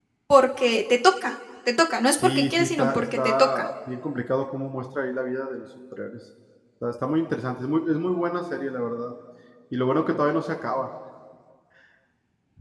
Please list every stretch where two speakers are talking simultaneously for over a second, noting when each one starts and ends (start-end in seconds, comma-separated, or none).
2.2-3.6